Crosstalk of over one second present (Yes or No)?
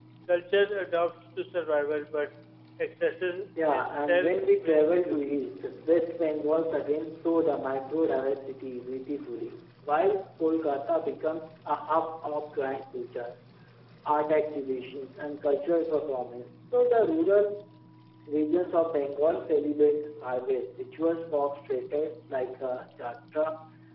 Yes